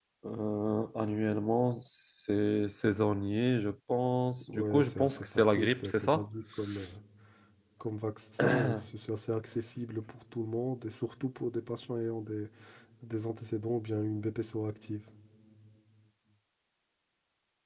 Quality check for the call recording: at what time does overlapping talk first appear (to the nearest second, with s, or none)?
5 s